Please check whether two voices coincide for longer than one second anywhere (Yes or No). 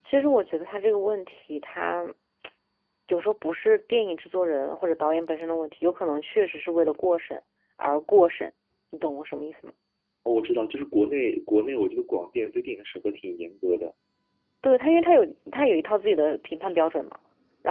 No